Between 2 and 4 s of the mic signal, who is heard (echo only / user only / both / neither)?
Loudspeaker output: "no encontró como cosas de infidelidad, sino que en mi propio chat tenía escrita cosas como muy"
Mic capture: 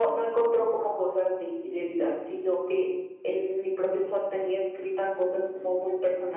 echo only